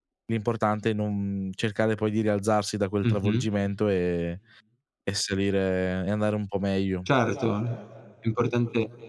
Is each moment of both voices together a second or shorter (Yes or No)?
Yes